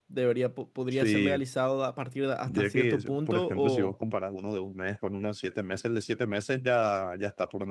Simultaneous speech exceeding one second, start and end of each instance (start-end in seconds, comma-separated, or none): 2.5-3.9